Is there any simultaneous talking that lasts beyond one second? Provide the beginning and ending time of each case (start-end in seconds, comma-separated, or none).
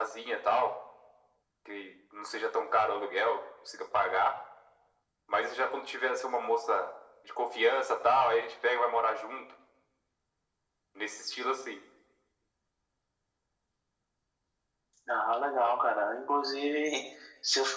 none